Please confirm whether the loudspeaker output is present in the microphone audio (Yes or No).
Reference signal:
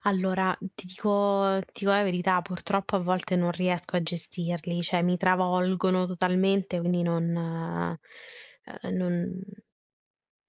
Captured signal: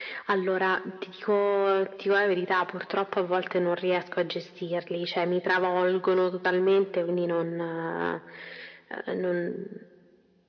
Yes